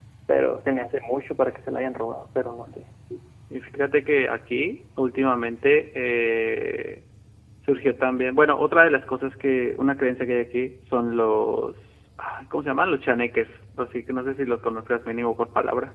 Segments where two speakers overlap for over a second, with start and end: none

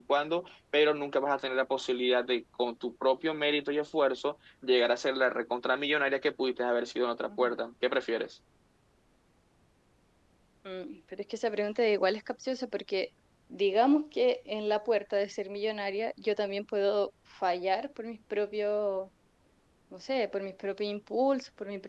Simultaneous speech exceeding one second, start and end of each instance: none

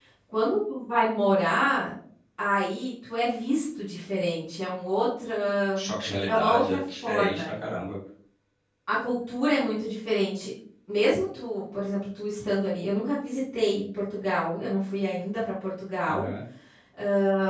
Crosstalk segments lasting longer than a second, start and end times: 6.3-7.5

